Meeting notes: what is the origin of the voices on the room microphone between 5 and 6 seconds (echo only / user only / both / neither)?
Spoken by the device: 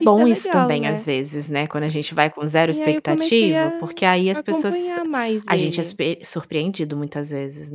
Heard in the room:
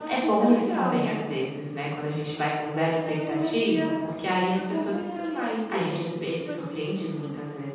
both